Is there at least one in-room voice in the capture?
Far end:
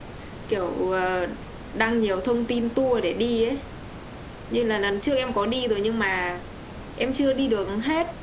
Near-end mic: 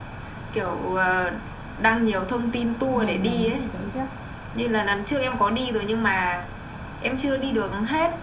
Yes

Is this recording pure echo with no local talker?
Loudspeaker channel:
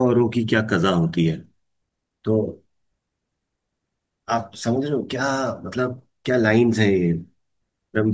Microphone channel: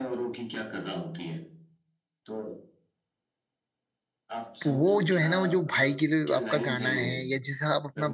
No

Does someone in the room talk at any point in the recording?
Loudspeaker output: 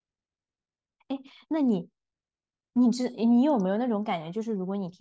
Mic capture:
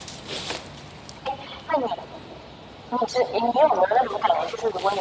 No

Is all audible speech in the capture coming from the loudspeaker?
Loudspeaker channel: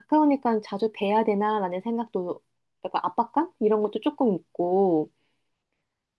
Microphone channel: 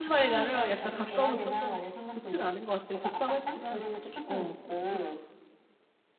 No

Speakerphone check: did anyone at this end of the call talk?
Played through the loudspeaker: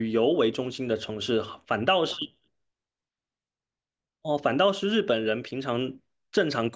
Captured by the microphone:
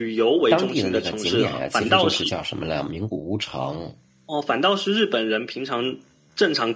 Yes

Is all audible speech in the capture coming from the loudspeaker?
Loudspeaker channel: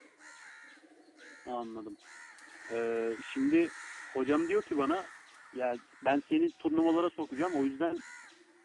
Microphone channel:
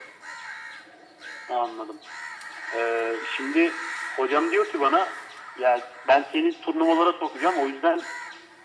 Yes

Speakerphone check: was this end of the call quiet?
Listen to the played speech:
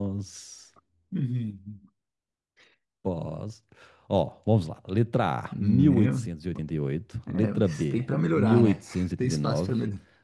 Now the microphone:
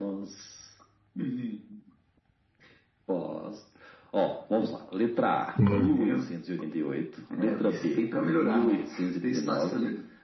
No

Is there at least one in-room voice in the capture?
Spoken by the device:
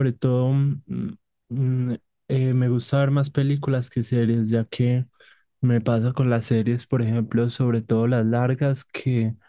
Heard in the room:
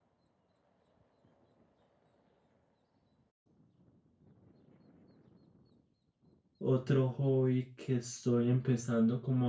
Yes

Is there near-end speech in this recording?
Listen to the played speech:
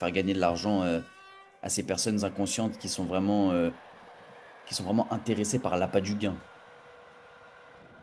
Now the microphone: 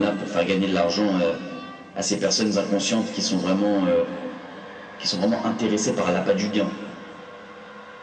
No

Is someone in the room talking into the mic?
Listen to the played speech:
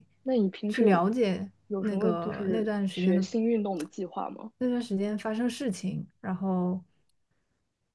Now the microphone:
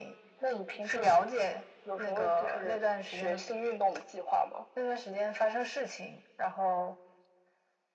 No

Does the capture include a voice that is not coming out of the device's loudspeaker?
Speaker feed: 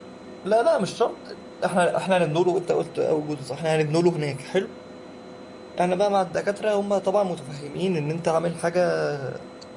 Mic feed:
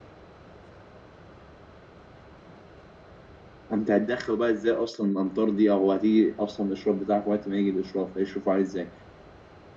Yes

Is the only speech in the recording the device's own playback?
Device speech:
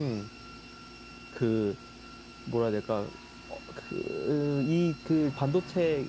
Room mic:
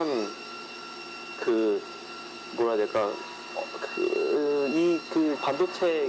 Yes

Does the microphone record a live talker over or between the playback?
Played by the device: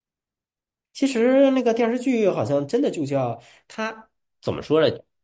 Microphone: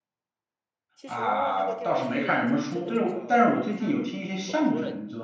Yes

